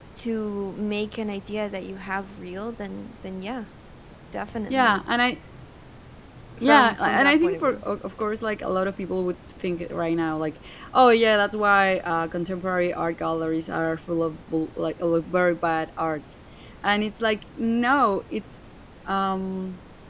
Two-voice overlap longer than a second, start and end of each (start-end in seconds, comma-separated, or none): 6.6-7.8